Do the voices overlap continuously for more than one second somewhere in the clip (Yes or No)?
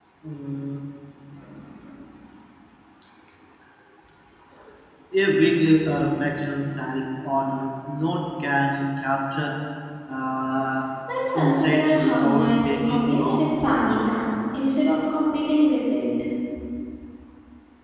Yes